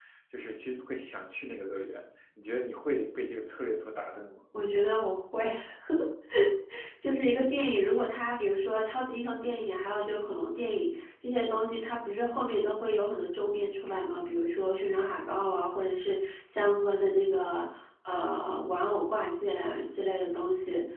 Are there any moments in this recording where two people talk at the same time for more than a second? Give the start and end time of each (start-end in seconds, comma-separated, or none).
none